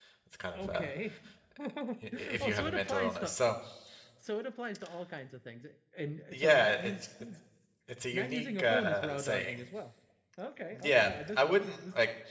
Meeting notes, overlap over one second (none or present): present